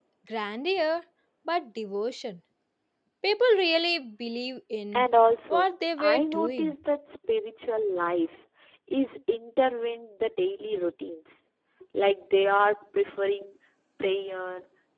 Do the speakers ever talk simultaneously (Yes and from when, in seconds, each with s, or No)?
Yes, from 5.5 s